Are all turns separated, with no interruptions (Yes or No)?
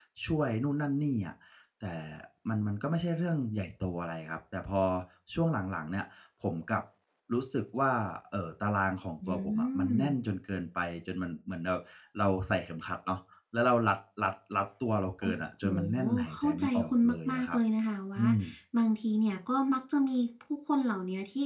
No